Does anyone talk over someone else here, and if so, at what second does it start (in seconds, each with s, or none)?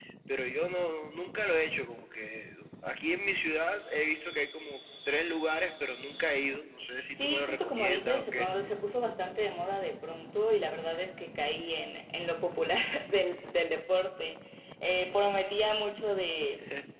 7.1 s